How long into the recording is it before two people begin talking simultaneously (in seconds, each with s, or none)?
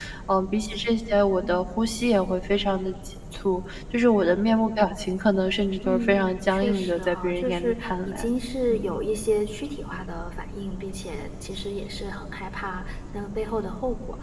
5.8 s